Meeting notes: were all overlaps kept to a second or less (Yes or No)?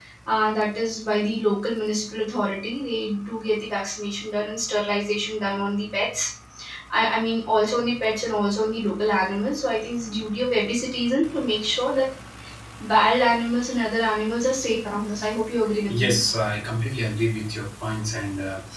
Yes